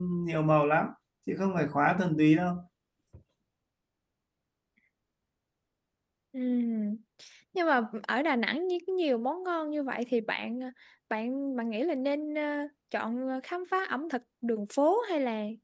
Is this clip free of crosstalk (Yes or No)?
Yes